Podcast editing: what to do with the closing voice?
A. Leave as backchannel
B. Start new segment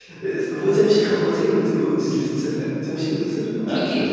B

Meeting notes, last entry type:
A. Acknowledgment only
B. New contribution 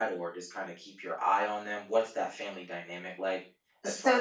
B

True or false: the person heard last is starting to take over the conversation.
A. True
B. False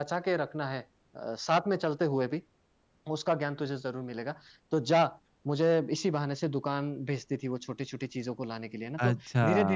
B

